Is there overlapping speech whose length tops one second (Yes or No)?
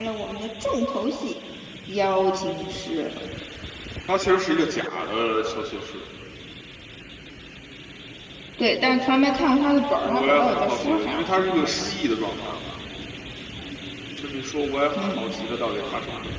Yes